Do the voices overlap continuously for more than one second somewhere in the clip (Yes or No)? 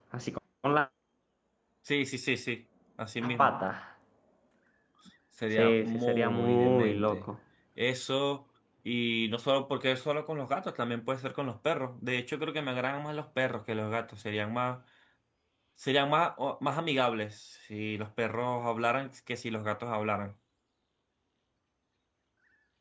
Yes